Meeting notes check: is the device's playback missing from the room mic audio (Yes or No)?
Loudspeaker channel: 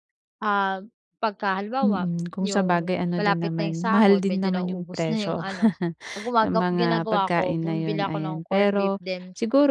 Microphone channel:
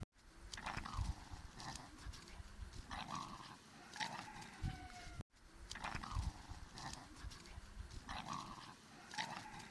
Yes